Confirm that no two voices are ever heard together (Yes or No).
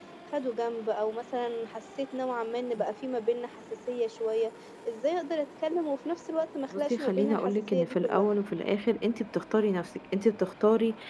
No